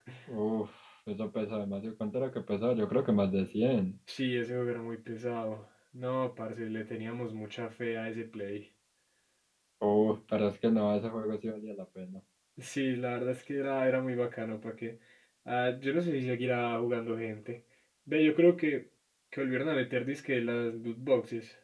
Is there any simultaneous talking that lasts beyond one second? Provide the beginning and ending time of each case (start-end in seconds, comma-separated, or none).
none